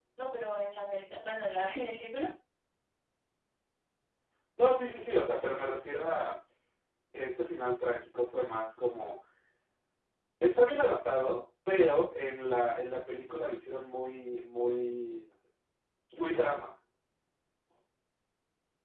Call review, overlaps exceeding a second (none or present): none